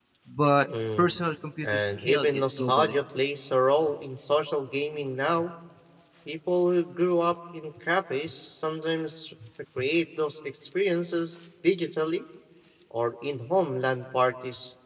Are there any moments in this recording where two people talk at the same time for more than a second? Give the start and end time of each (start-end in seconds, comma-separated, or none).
1.6-3.0